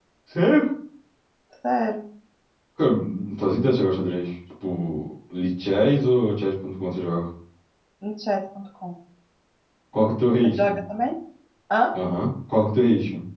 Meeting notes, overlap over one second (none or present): none